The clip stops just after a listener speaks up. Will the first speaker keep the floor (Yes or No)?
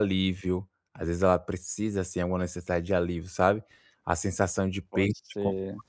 Yes